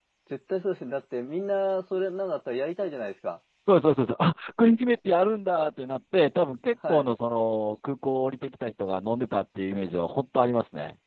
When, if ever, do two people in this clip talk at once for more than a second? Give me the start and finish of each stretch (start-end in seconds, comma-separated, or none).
none